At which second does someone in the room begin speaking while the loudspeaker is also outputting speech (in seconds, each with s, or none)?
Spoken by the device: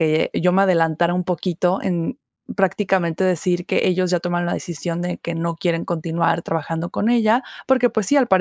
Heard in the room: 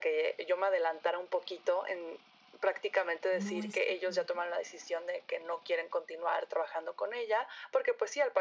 3.3 s